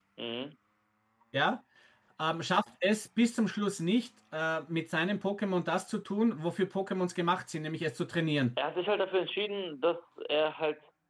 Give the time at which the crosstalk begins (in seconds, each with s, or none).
none